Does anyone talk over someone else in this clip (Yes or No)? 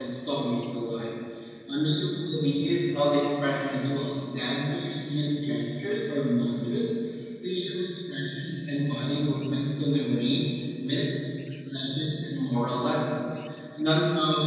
No